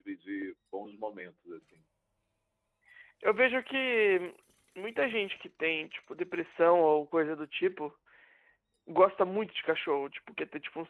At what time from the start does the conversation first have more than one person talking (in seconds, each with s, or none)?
none